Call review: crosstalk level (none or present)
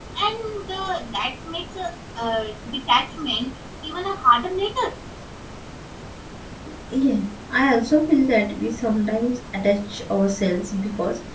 none